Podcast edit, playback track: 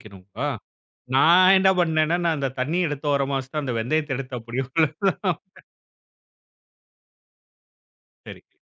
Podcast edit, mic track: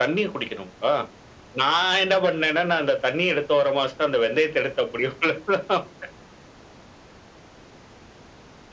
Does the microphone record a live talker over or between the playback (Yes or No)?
No